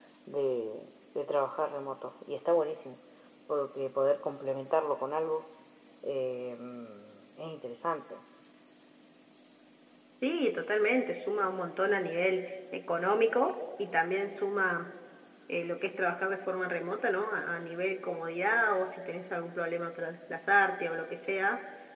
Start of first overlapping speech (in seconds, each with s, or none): none